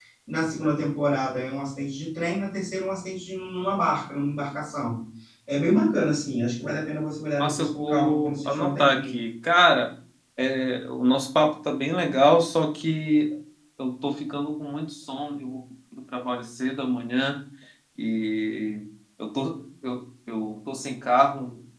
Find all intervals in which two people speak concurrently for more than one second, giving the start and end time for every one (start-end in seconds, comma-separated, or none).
7.4-9.1